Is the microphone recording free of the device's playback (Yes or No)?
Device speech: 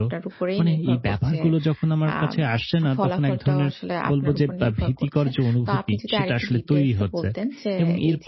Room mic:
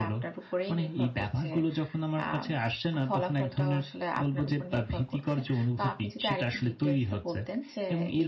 No